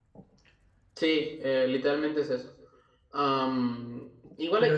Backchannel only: Yes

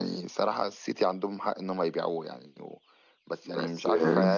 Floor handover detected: No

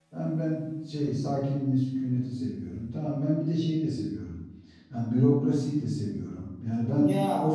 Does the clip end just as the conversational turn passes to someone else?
No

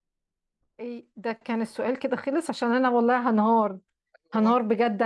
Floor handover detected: No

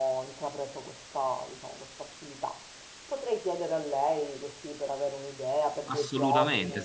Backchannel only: No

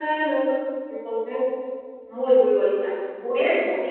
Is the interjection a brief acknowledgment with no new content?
No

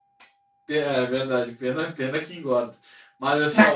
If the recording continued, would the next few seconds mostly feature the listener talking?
No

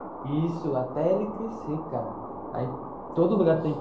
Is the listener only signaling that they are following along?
Yes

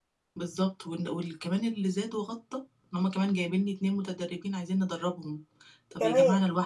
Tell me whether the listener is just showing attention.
Yes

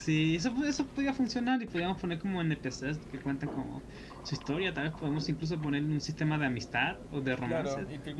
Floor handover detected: Yes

